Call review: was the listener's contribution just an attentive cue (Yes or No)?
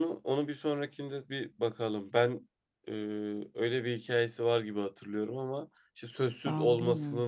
Yes